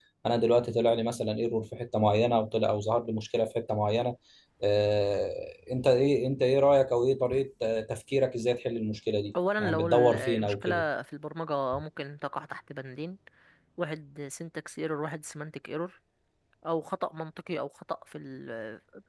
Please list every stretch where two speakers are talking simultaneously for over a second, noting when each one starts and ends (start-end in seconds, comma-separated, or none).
9.6-10.8